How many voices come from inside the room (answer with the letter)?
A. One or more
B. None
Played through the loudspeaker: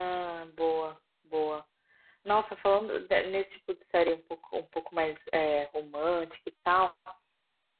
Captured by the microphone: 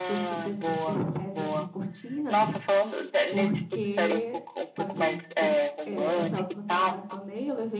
A